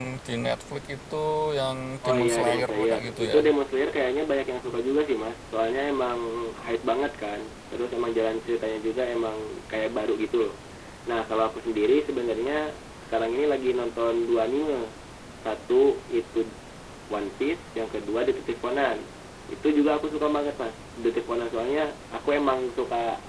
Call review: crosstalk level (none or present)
present